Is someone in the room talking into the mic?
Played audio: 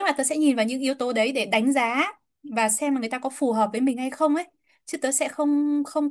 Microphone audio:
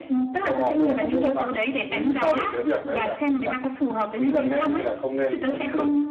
Yes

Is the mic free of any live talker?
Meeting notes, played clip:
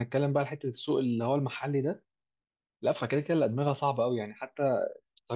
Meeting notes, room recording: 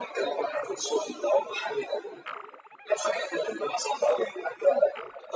Yes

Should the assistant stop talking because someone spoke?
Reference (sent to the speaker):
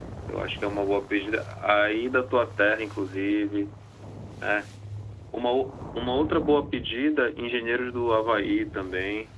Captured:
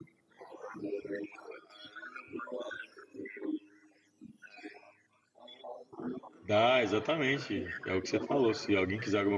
Yes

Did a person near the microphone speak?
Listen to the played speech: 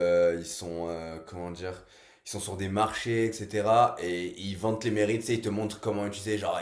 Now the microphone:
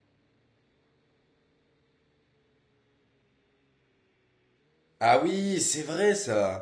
Yes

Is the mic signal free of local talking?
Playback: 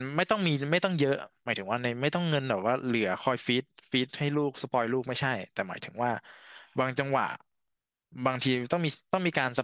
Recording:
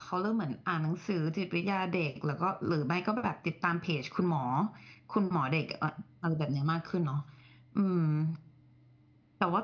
No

